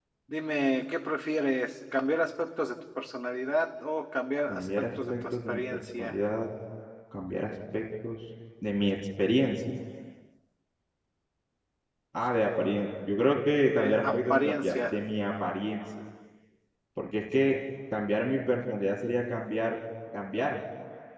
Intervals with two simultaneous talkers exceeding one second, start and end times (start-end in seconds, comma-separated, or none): 4.5-6.2, 13.8-15.0